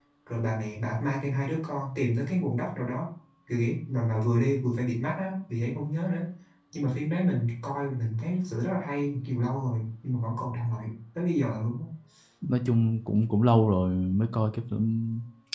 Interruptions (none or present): none